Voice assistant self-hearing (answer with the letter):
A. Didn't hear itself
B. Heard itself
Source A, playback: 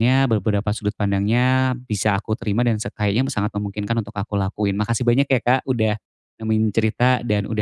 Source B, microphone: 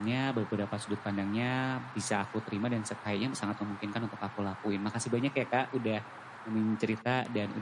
B